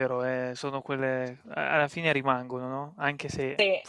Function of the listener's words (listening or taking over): listening